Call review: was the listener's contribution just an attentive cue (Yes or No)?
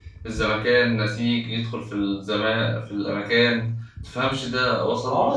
No